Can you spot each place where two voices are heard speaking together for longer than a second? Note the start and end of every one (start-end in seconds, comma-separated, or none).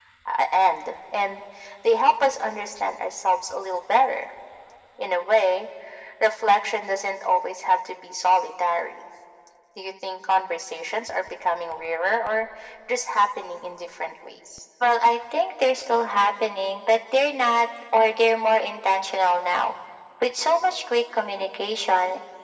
none